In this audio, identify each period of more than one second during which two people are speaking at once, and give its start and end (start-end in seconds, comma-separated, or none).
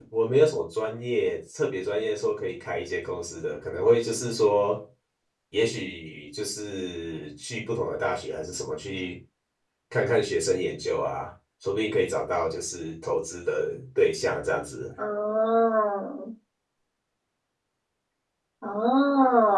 none